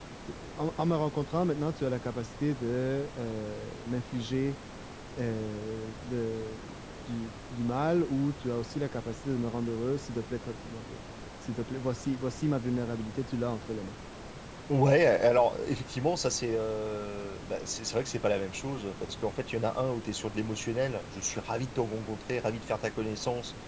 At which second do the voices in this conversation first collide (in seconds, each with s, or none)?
none